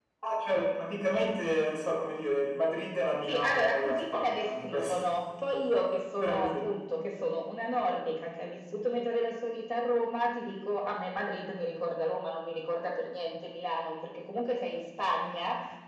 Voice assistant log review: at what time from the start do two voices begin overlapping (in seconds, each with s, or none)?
3.3 s